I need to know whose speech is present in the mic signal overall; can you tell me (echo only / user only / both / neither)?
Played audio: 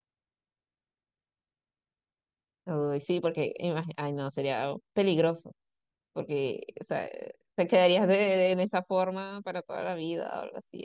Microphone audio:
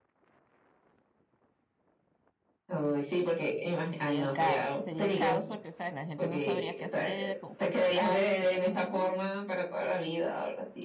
both